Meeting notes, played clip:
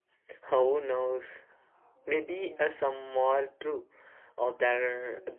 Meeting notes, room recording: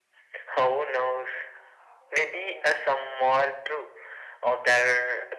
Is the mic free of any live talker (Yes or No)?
Yes